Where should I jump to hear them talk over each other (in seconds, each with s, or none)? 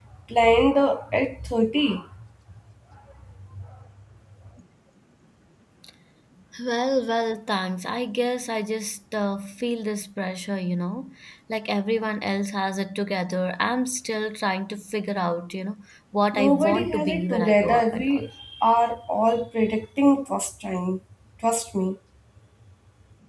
16.3 s